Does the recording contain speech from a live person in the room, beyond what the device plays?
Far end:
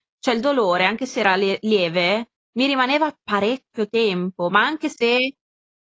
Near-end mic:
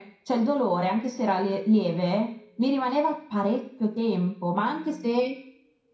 No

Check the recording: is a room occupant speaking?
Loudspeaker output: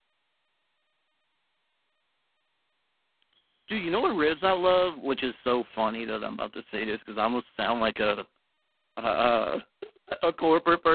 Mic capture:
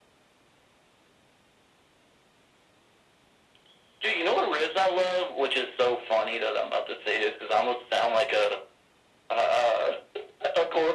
No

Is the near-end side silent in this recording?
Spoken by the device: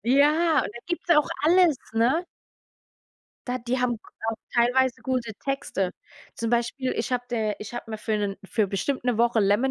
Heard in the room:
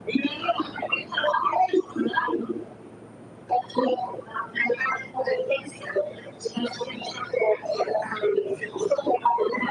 Yes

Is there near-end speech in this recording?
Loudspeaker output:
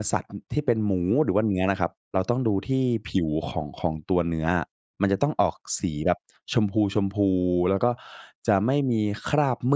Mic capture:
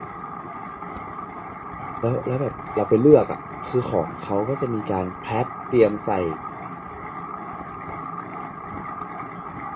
Yes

